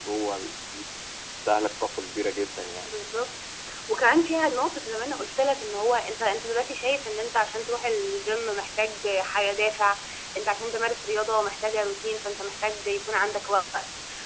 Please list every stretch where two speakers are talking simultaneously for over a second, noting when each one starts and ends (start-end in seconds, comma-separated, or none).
none